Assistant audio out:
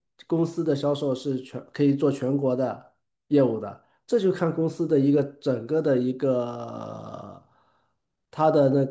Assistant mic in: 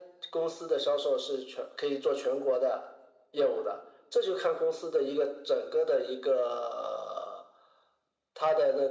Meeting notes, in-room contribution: none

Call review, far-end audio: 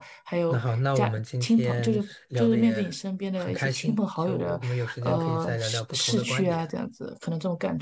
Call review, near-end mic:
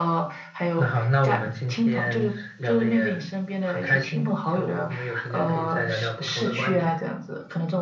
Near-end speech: none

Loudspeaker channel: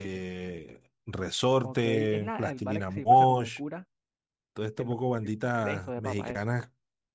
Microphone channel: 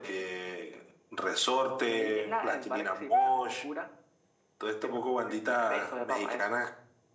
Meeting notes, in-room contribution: none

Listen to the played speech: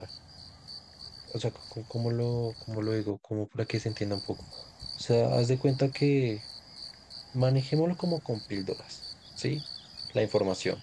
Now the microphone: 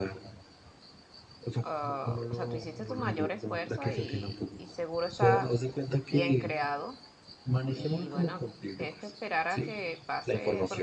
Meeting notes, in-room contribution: present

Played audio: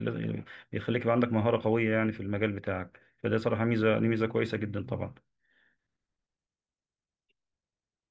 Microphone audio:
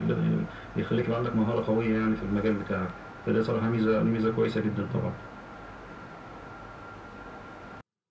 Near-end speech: none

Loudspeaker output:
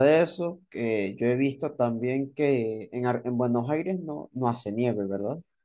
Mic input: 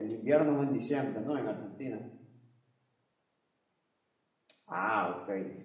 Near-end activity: present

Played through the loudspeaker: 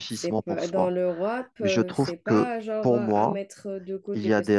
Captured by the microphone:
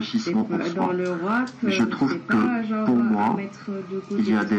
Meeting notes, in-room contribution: none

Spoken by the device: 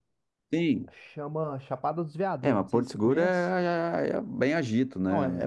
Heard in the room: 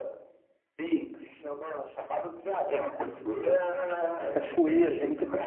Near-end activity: present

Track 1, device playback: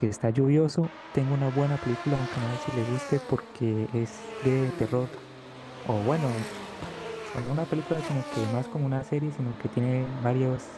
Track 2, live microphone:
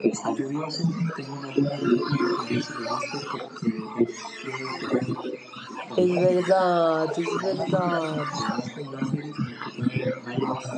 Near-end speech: present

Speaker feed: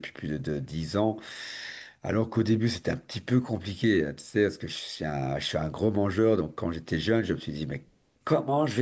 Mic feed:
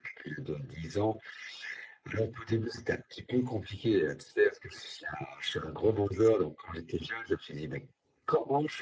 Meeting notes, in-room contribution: none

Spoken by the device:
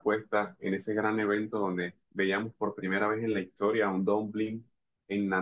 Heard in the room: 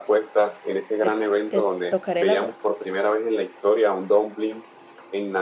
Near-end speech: present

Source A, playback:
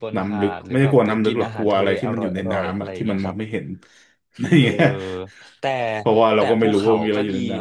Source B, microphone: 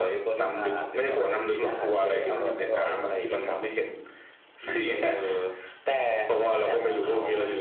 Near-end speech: none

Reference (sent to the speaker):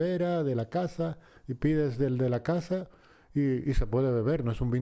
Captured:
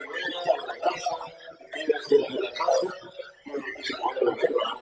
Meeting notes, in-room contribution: none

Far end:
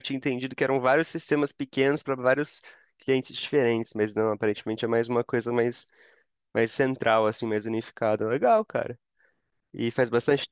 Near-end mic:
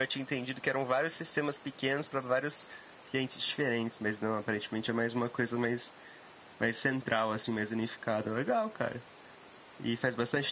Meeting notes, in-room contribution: none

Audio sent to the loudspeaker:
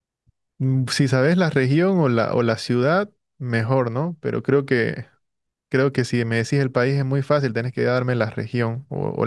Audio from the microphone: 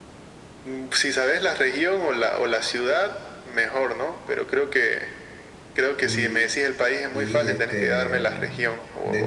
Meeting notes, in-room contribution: present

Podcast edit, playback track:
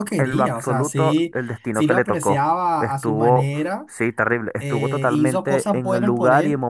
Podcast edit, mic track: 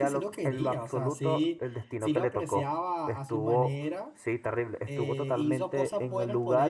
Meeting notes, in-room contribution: none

